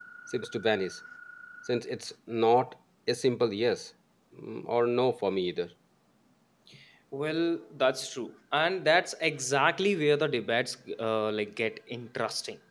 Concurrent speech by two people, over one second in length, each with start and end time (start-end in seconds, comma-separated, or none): none